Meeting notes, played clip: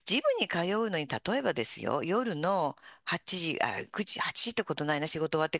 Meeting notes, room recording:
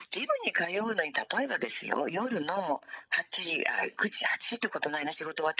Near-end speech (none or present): none